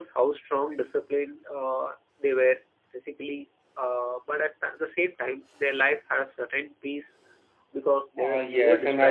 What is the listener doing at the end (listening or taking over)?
taking over